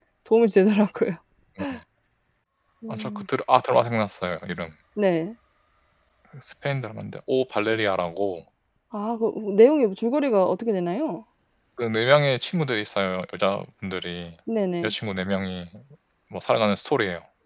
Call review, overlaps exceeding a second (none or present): none